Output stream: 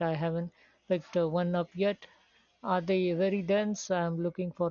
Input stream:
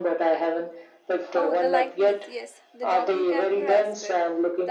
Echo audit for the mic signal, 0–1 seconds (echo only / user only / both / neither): echo only